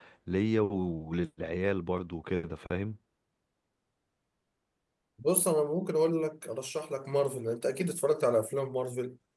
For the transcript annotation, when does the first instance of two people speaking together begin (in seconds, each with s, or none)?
none